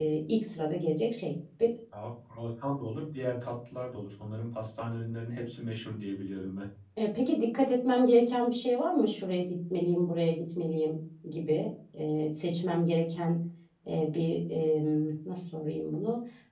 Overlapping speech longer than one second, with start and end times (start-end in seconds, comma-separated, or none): none